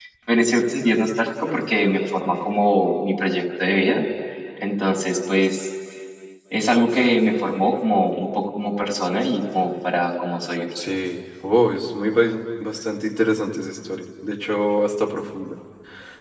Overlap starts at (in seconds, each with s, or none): none